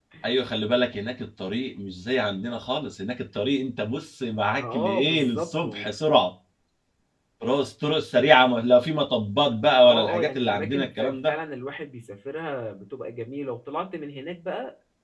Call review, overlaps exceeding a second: present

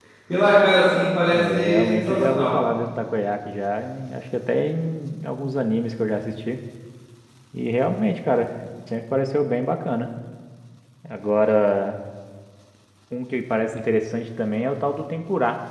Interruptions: present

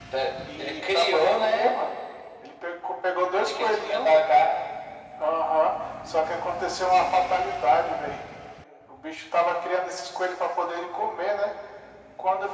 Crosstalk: present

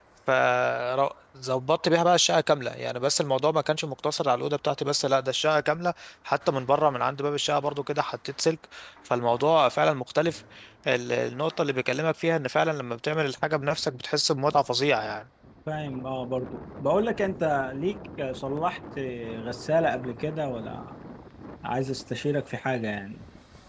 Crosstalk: none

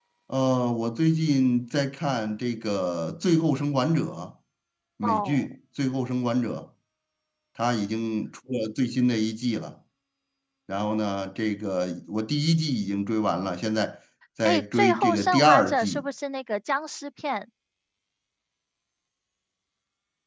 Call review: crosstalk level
present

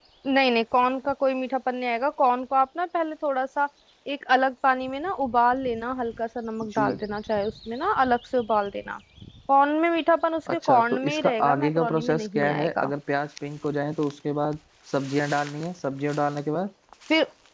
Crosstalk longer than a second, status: present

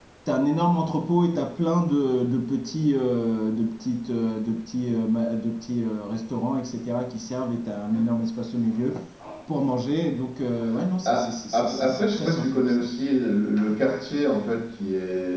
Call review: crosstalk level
present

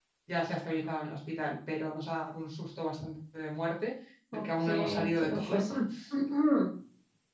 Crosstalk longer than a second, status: present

